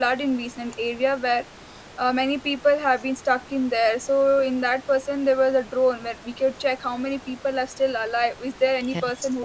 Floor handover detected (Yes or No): No